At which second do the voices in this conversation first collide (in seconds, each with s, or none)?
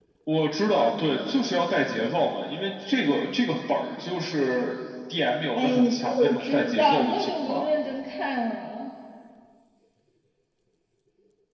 5.6 s